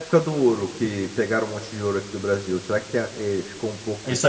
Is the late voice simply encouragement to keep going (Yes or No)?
No